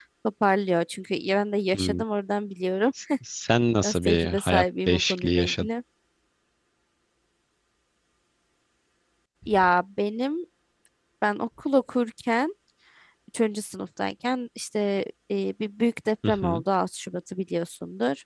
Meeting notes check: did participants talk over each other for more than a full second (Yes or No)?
Yes